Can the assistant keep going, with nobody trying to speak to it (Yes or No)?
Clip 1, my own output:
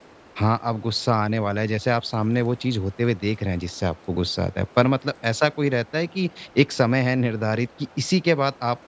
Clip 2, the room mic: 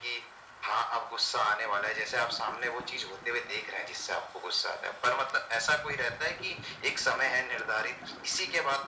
Yes